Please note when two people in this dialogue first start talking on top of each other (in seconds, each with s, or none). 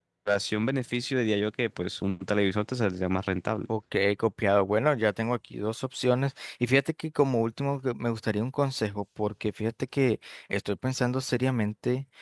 none